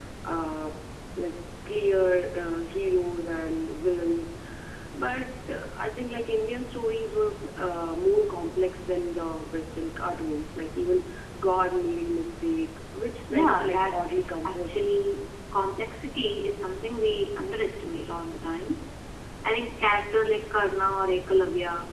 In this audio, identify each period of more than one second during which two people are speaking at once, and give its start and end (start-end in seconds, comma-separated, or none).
13.3-14.9